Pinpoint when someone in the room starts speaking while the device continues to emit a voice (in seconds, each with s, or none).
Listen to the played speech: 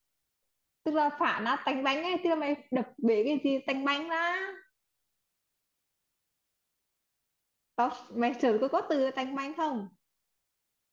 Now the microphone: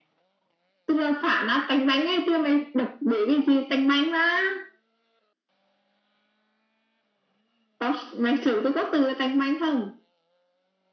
none